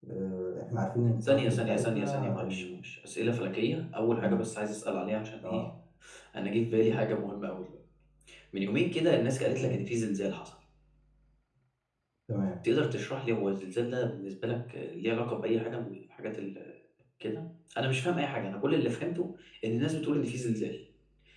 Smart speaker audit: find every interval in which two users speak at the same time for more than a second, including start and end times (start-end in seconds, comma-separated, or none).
1.2-2.6